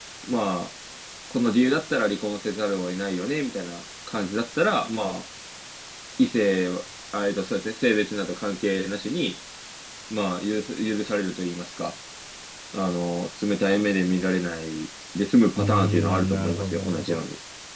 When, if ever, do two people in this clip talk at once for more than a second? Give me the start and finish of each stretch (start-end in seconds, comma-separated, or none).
15.6-17.2